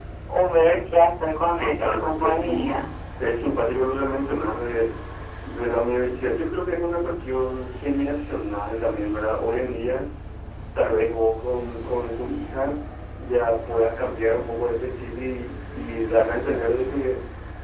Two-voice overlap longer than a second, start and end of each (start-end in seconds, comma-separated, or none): 1.6-2.8